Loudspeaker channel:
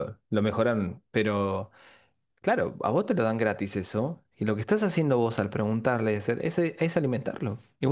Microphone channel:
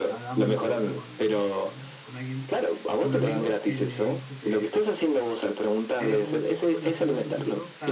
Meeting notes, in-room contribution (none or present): present